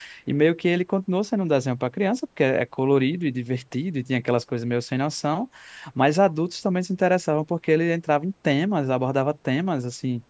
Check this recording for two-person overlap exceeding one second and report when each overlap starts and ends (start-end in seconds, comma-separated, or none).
none